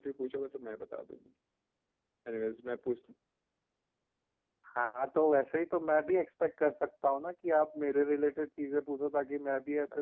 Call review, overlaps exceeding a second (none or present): none